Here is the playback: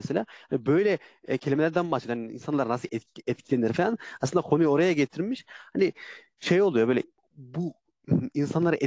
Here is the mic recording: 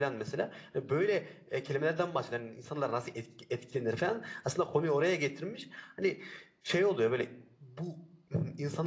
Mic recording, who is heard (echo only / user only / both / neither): echo only